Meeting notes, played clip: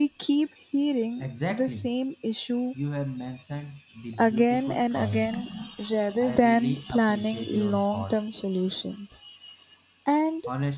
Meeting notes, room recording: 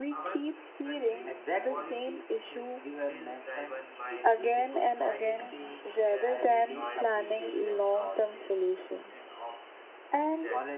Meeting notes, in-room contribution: present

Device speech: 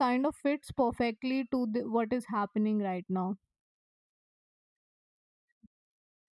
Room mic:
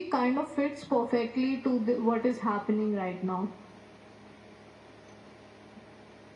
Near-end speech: none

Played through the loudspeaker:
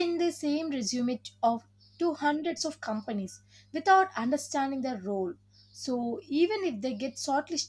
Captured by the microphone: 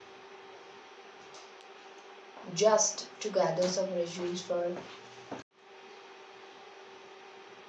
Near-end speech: present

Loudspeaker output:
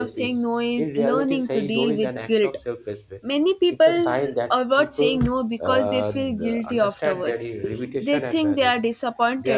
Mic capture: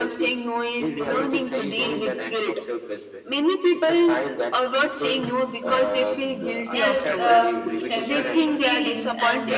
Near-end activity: present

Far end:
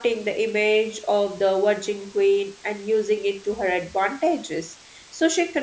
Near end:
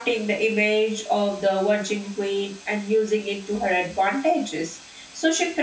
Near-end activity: none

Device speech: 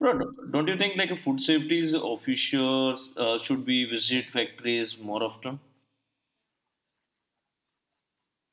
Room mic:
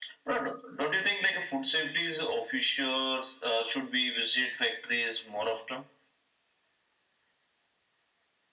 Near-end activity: none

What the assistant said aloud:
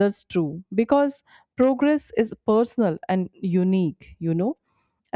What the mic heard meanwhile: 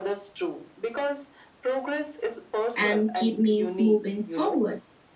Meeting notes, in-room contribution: present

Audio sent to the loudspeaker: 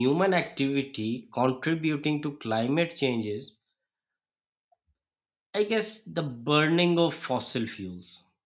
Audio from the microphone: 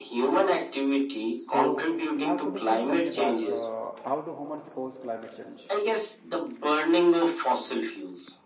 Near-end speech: present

